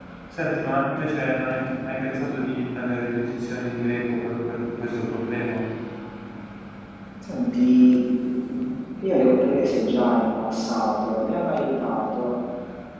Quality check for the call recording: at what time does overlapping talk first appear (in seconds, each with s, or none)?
none